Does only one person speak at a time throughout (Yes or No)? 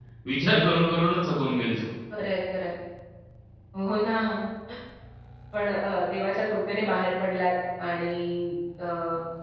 Yes